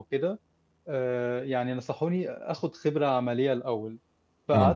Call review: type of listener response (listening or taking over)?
listening